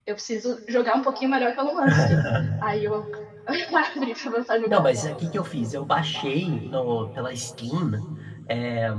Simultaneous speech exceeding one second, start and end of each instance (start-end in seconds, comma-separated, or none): none